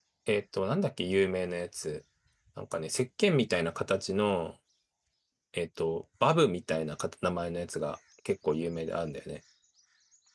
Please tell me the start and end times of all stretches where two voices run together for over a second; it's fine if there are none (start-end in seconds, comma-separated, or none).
none